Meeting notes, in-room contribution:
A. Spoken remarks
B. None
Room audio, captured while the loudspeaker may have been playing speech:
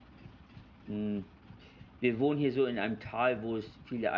A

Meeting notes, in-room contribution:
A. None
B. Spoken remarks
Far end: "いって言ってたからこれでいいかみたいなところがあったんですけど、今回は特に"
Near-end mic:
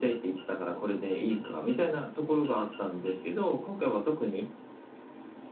B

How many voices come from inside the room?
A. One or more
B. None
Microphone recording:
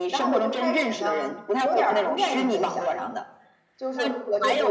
A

